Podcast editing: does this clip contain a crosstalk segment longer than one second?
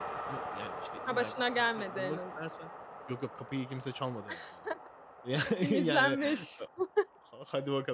Yes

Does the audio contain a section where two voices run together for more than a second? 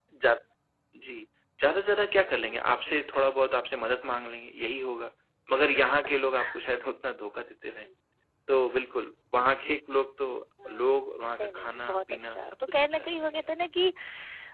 Yes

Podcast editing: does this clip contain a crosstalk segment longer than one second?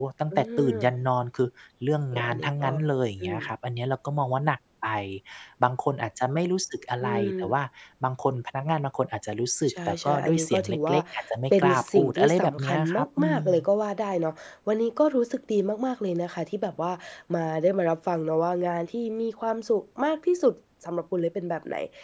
Yes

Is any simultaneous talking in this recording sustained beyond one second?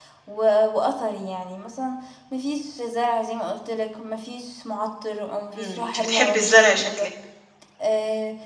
Yes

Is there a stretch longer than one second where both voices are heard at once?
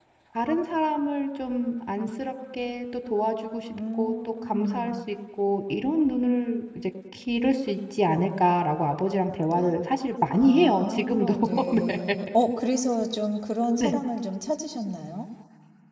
Yes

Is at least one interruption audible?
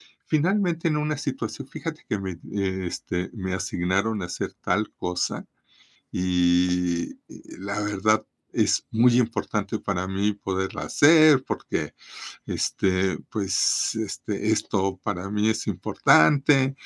No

